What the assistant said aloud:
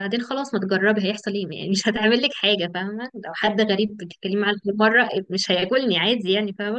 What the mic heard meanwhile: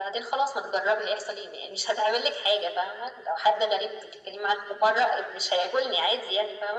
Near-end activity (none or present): none